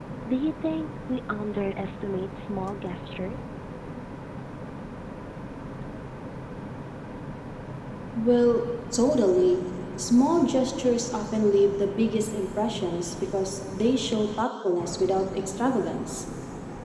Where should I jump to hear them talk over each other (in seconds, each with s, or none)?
none